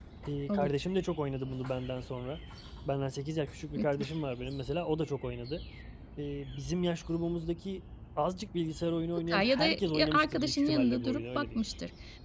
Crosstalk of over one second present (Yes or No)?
Yes